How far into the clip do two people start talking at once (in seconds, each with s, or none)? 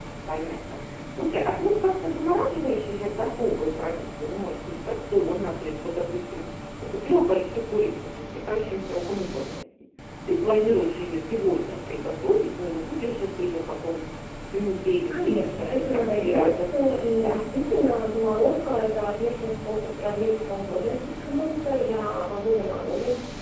15.0 s